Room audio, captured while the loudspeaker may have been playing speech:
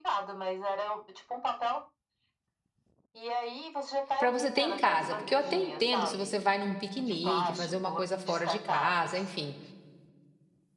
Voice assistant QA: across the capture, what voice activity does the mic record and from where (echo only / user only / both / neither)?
both